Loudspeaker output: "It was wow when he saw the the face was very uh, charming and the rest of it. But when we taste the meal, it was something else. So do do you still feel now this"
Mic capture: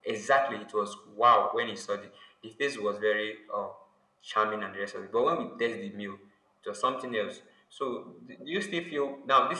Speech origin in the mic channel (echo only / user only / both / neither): echo only